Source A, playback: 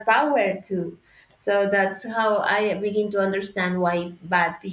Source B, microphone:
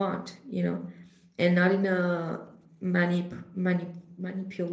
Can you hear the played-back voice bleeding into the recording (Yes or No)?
No